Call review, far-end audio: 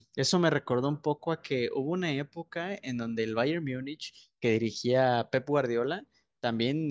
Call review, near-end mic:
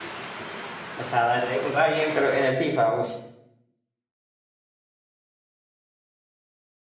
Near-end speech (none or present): present